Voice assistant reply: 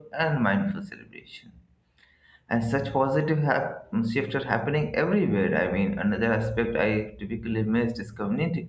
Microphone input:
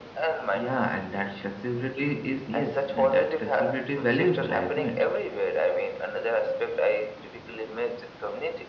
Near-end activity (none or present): present